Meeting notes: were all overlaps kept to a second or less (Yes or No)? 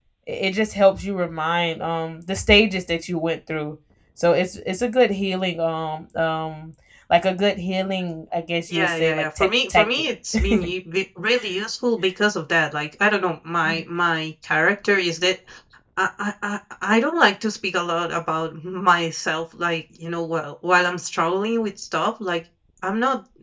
No